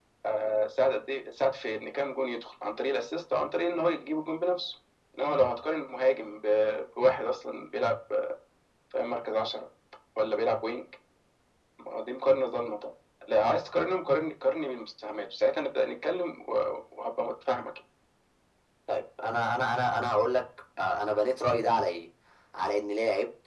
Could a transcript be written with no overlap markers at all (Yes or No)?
Yes